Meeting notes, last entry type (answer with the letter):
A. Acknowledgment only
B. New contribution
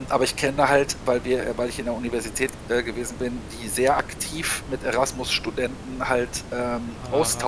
A